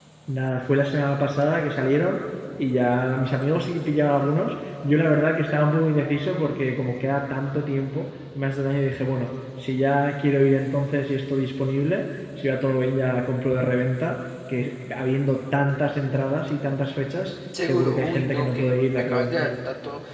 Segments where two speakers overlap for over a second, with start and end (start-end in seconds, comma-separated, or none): 17.6-19.5